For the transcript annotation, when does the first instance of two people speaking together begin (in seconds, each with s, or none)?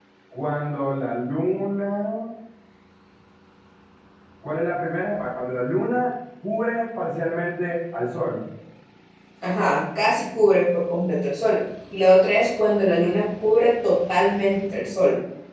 none